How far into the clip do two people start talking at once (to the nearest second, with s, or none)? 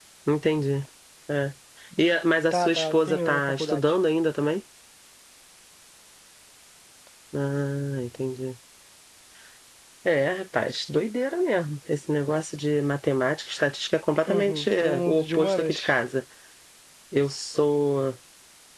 3 s